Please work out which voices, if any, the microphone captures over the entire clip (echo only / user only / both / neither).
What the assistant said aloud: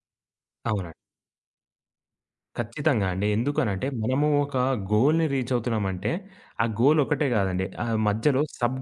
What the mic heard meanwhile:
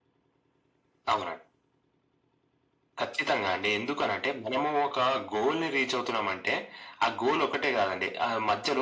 echo only